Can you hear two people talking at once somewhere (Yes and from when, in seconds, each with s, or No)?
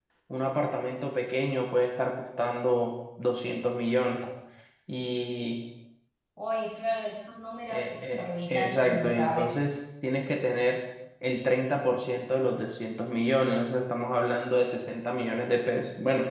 Yes, from 7.7 s